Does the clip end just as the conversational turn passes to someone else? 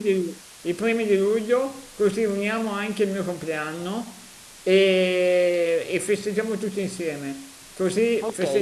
Yes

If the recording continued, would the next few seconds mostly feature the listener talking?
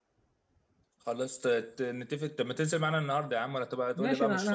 Yes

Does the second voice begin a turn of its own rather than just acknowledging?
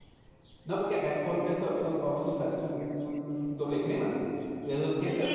Yes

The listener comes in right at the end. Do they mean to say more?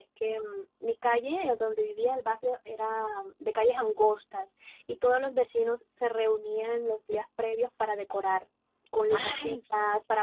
No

